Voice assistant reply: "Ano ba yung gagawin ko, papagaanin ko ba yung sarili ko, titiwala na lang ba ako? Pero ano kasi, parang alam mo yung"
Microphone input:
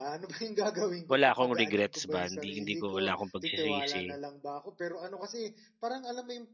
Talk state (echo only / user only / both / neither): both